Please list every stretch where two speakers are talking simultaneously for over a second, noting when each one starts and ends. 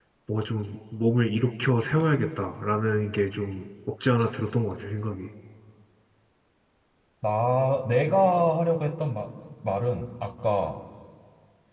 none

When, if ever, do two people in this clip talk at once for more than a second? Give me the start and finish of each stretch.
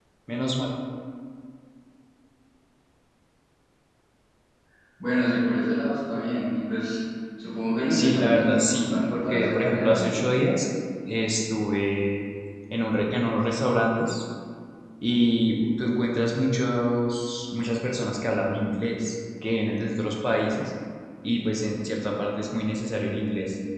7.9-10.2

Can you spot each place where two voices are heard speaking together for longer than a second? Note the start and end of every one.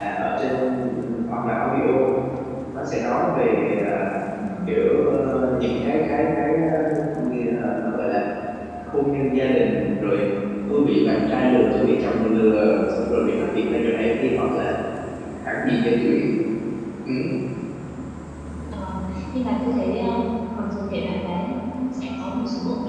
none

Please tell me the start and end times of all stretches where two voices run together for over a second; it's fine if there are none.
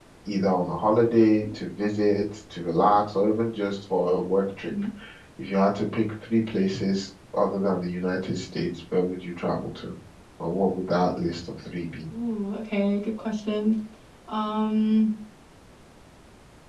none

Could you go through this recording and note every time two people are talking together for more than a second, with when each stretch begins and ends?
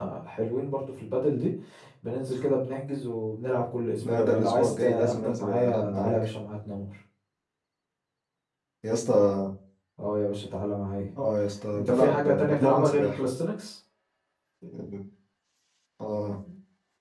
4.0-6.1, 11.8-13.3

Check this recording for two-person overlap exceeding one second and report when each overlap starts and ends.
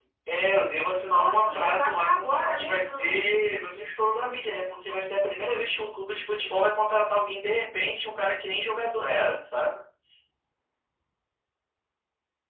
1.1-3.2

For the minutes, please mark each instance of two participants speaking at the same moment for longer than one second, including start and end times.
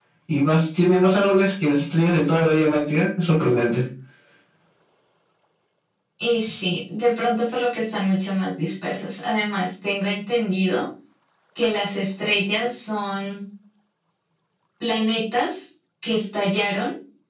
none

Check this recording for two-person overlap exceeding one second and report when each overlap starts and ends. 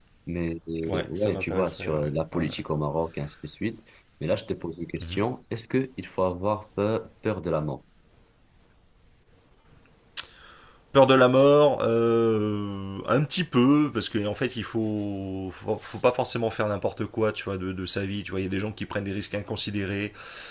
0.9-2.5

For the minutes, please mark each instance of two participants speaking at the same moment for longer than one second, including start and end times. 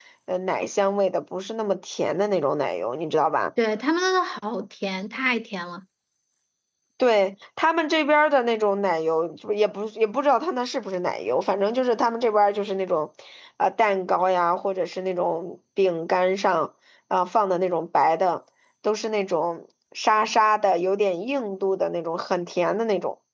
none

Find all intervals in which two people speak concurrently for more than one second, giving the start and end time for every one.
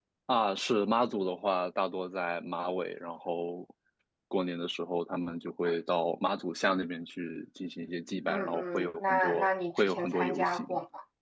8.3-10.6

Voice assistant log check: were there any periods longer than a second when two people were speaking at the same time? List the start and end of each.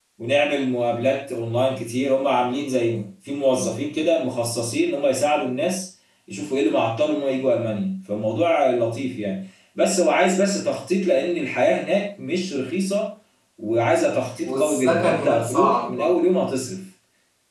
14.4-16.2

